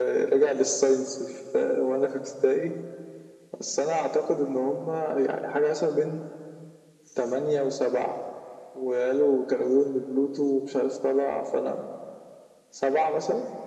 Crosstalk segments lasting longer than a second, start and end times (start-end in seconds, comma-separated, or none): none